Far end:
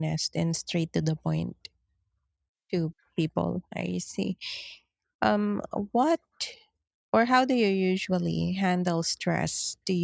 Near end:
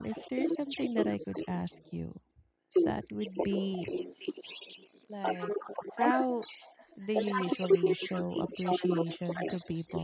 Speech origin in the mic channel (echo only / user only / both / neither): both